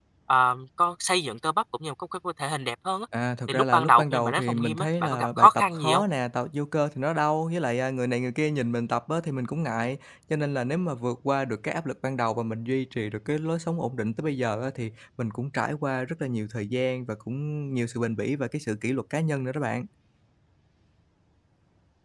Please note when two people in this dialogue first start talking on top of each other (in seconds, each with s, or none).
3.5 s